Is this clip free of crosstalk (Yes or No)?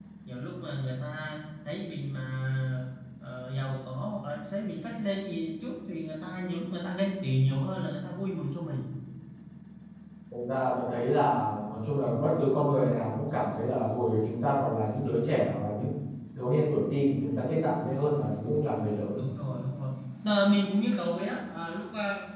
Yes